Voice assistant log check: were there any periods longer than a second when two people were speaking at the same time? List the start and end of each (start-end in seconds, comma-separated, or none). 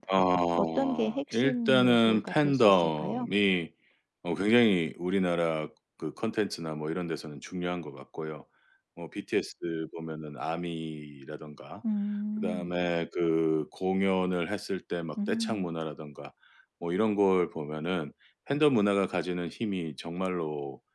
0.6-3.3